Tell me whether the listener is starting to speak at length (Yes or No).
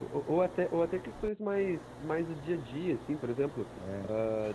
No